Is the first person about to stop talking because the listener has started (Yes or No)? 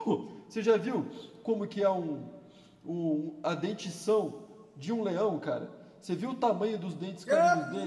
Yes